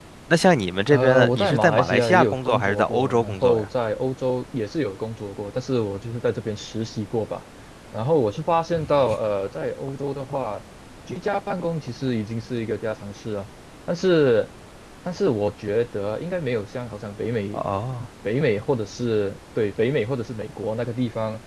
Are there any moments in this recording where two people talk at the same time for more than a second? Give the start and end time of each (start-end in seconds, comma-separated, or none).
0.9-3.6